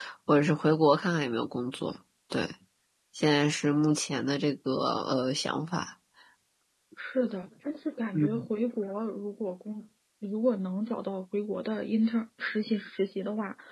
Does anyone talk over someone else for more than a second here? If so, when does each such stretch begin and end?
none

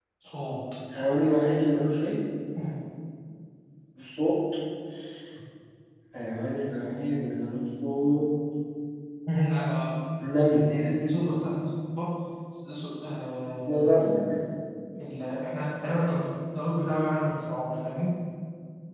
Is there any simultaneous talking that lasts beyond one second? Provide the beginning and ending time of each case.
none

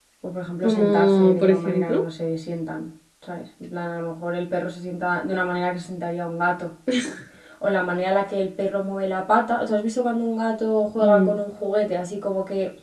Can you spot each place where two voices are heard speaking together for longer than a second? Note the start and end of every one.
0.6-2.0

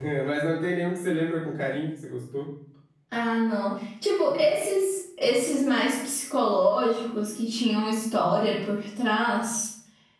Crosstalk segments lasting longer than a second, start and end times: none

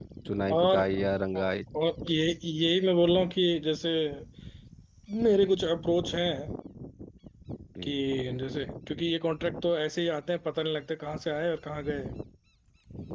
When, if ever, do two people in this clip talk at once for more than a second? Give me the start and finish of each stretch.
none

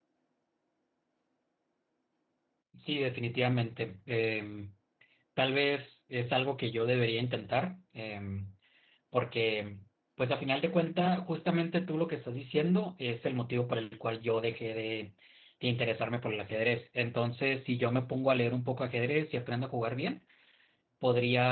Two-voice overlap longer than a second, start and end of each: none

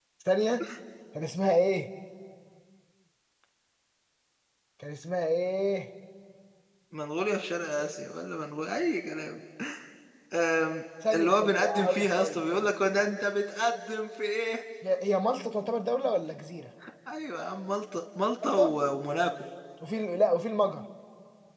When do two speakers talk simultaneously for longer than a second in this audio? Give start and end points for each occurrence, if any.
11.1-12.6

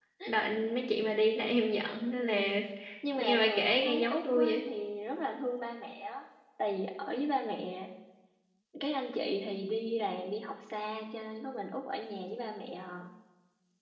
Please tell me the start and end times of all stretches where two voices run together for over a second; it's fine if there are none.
3.2-4.7

